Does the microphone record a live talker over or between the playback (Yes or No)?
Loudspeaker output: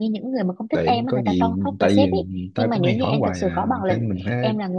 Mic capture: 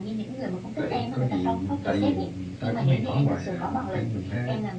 No